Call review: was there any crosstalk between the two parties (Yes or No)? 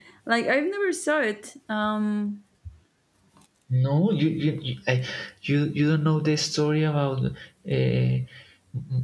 No